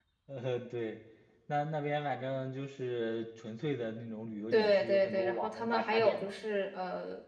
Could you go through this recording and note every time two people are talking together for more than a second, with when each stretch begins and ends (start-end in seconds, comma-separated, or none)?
4.5-6.3